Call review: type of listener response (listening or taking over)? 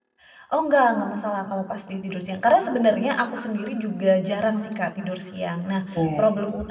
listening